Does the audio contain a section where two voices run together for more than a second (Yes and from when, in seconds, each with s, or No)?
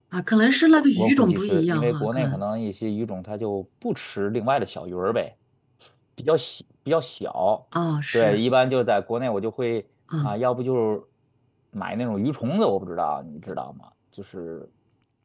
Yes, from 1.0 s